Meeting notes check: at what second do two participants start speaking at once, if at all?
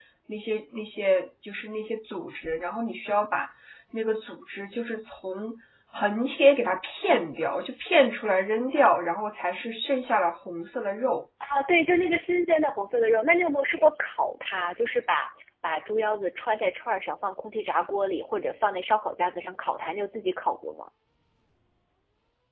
none

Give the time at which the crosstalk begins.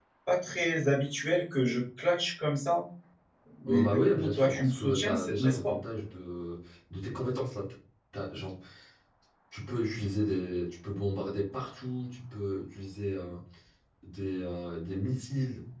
3.6 s

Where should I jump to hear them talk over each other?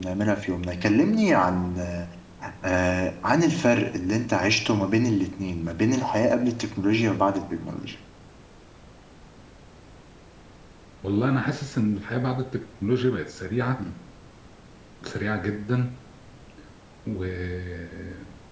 none

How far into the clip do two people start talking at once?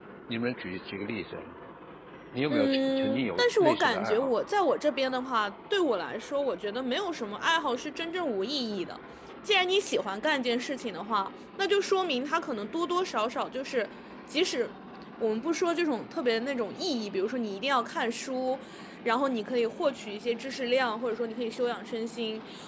2.5 s

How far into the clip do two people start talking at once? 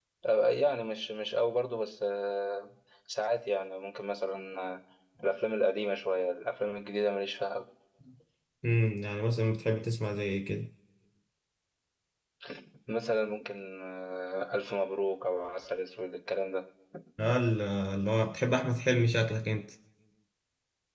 none

